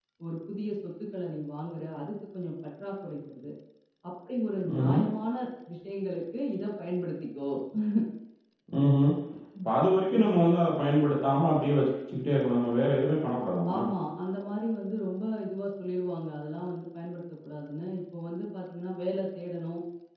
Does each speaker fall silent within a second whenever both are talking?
Yes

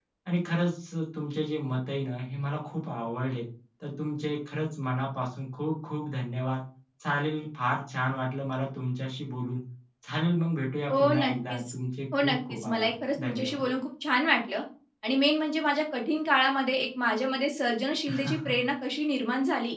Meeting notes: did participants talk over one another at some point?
Yes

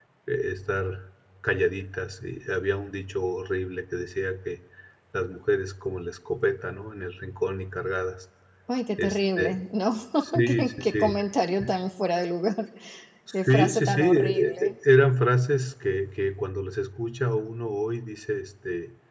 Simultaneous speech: Yes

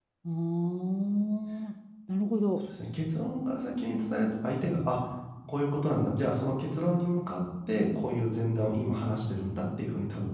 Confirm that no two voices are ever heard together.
Yes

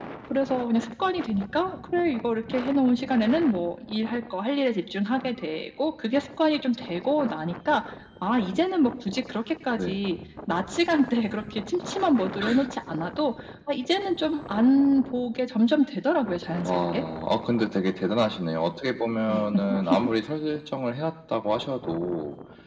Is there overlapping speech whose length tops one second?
No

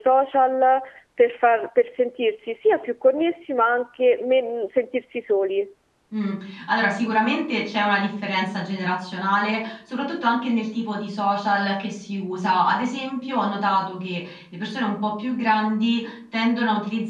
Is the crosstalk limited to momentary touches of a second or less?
Yes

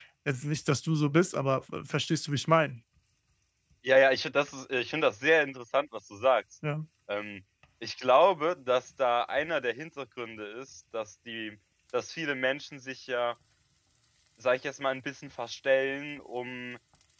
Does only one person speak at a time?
Yes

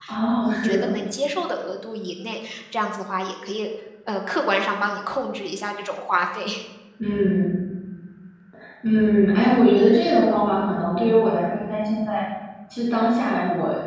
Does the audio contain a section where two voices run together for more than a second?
No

